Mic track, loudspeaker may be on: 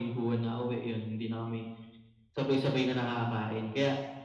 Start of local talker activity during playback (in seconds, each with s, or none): none